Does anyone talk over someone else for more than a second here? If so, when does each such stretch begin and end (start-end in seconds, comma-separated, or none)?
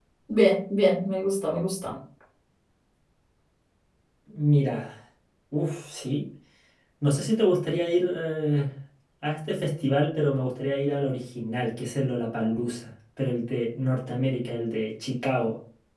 none